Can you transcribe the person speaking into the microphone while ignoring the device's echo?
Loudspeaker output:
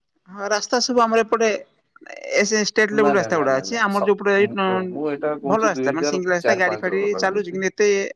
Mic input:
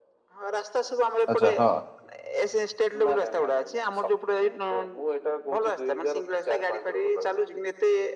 ଆଚ୍ଛା ହଁ

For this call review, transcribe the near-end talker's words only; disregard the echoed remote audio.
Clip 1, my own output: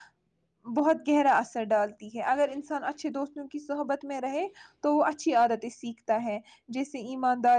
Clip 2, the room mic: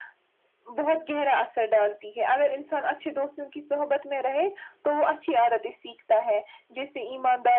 none

